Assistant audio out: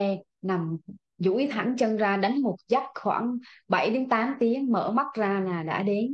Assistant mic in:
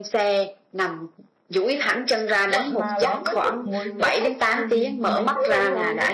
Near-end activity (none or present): present